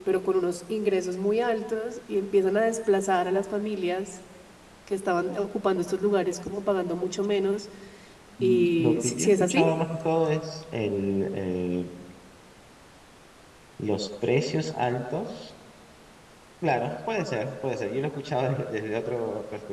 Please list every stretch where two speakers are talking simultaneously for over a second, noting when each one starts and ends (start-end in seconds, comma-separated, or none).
8.4-9.7